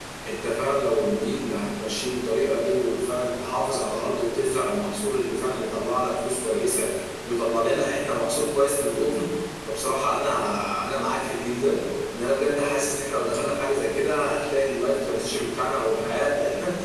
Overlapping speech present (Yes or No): No